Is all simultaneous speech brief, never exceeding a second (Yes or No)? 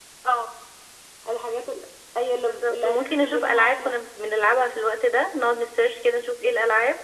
No